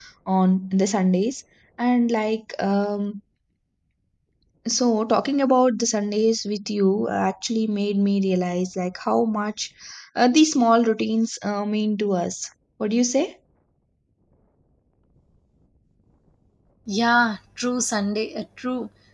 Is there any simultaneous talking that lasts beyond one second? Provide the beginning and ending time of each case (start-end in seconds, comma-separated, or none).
none